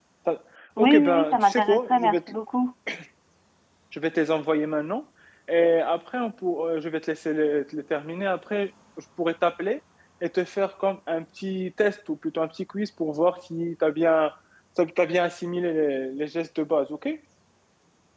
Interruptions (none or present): present